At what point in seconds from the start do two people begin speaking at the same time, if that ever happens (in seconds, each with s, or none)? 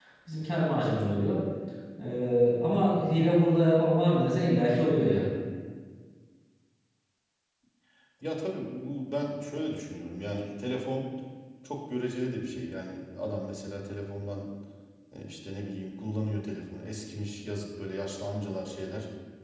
none